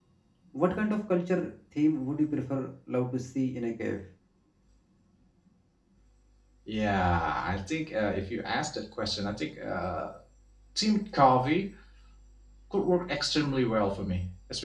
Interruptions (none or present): none